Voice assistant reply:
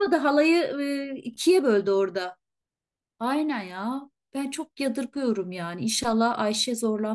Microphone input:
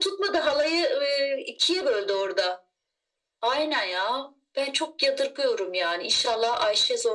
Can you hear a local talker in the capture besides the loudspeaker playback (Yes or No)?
No